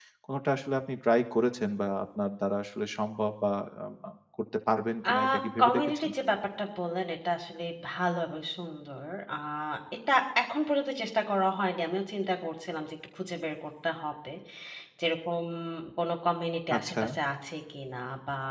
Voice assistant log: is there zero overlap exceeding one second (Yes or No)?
Yes